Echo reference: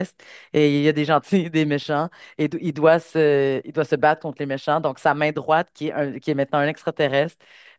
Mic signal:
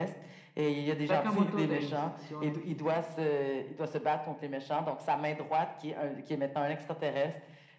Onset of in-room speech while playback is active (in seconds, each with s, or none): 1.0 s